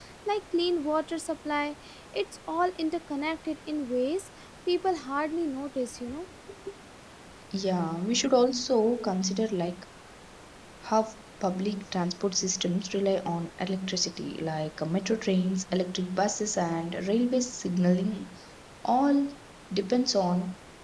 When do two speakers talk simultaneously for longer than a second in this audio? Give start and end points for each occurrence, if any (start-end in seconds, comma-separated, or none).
none